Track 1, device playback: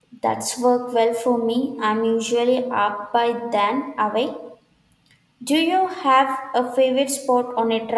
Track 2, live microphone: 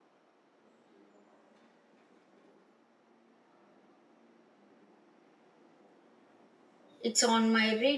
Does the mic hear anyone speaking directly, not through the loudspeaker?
Yes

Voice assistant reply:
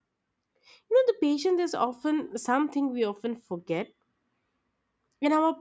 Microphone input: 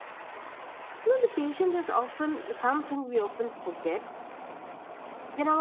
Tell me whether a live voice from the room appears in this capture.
No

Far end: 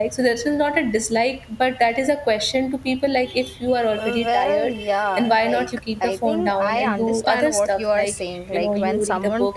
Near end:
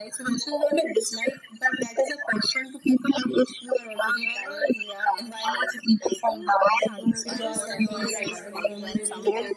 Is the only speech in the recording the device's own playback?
No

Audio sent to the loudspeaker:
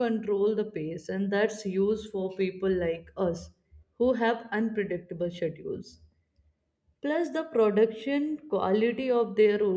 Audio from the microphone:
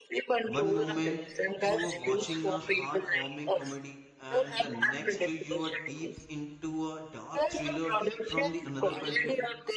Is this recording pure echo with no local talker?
No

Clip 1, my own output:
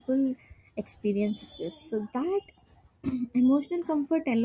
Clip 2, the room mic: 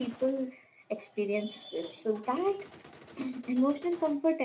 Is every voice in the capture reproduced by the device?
Yes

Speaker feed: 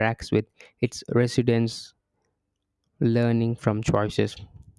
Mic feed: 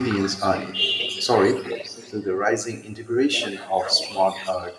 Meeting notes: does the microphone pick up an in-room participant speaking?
Yes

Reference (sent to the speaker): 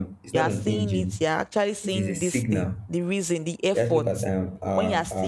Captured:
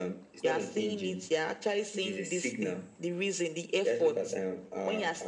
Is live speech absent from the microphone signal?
Yes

